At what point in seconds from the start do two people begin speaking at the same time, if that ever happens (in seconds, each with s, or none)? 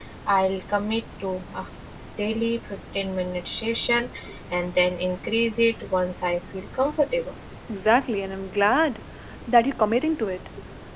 none